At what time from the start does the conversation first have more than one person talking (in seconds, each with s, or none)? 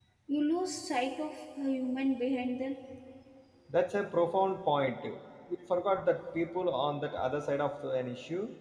none